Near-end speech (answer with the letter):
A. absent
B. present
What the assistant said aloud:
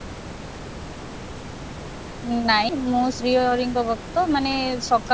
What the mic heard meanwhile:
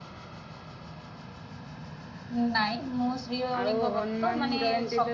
B